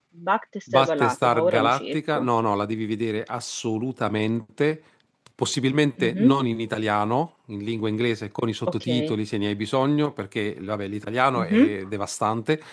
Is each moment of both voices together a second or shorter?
No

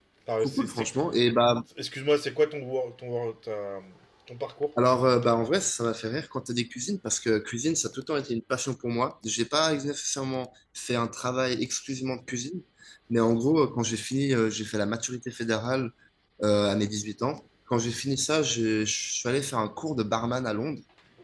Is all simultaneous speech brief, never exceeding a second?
Yes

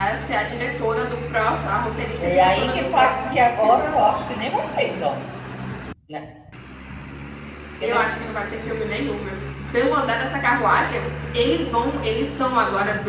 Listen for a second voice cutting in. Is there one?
Yes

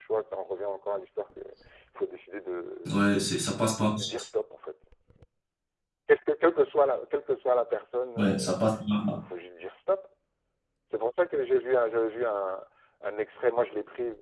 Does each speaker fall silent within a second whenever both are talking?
Yes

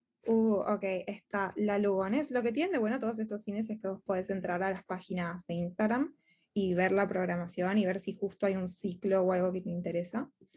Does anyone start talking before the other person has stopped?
No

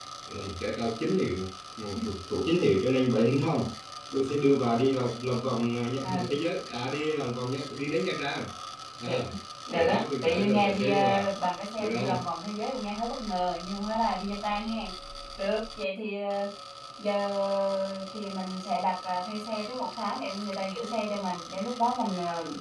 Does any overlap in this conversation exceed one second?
Yes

